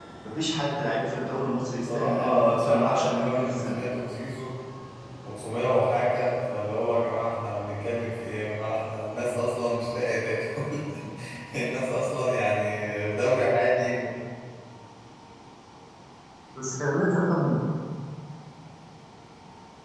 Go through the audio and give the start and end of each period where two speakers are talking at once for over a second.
1.8-3.8

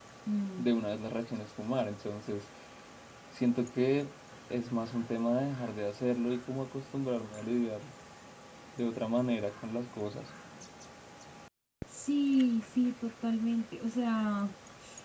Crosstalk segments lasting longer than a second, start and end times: none

